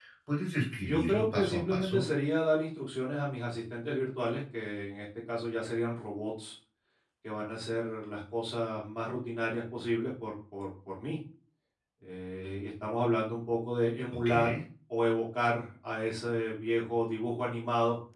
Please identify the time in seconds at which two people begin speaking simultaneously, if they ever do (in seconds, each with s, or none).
0.8 s